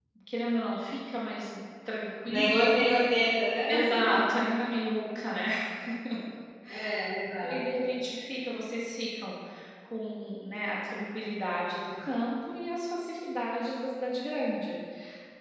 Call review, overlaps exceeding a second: none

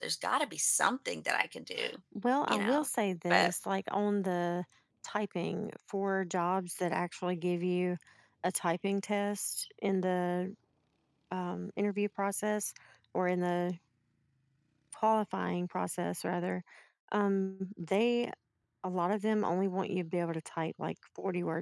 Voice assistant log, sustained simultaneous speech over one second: none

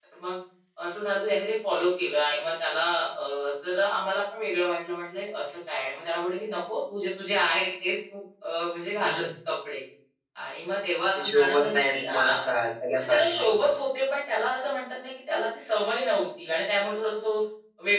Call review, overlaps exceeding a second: present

